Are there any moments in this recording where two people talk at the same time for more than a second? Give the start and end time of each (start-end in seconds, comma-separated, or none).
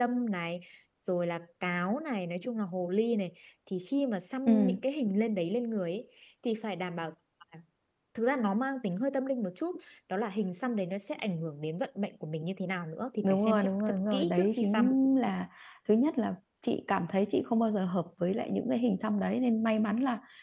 13.2-14.9